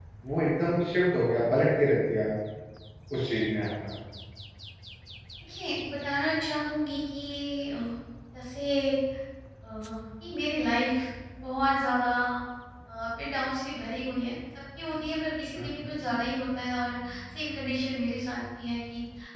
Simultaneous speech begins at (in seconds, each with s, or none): none